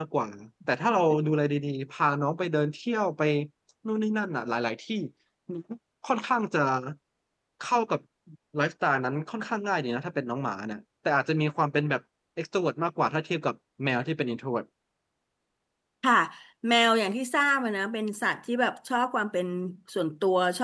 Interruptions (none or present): none